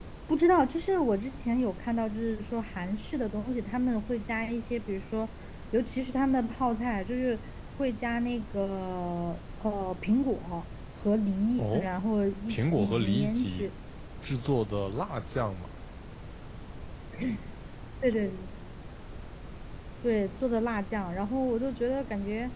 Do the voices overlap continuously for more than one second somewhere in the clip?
Yes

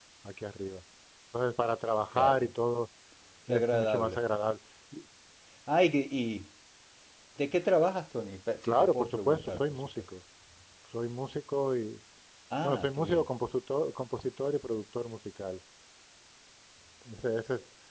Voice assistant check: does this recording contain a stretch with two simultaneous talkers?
Yes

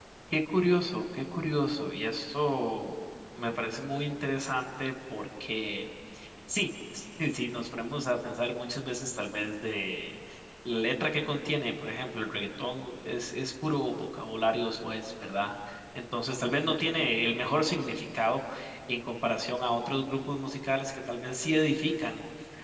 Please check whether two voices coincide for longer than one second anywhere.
No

